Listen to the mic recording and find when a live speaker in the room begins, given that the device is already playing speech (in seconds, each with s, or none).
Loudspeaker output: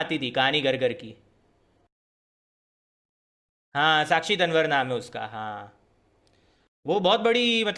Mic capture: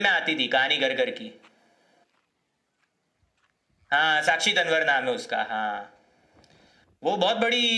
none